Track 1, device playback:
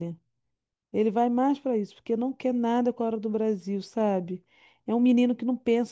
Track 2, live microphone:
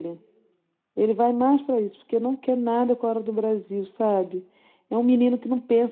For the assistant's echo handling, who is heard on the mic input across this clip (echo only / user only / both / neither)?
echo only